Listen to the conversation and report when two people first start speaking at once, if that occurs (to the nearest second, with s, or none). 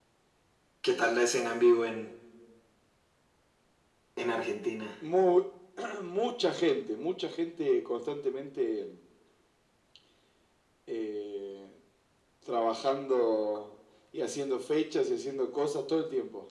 none